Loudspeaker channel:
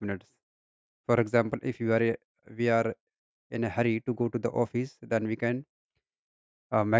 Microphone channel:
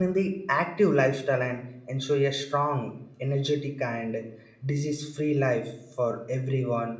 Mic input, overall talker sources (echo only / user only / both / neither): user only